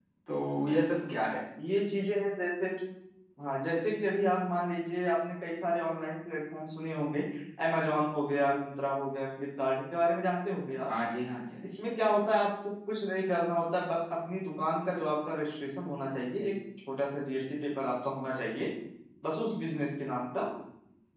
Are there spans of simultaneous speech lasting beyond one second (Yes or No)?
No